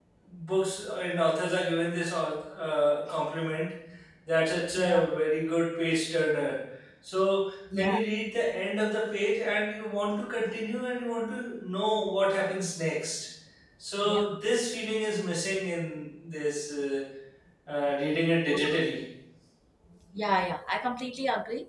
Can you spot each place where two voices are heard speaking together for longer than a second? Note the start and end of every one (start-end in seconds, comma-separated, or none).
none